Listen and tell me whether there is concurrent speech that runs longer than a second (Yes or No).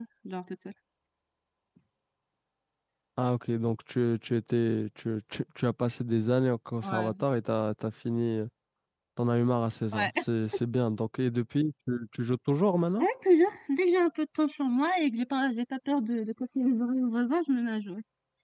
No